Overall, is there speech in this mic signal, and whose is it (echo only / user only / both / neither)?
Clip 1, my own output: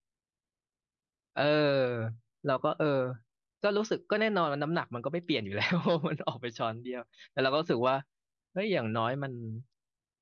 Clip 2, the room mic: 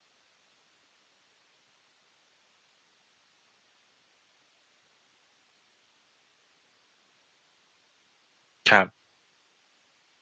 user only